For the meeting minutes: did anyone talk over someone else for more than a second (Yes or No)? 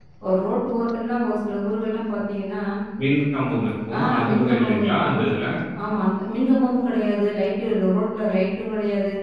Yes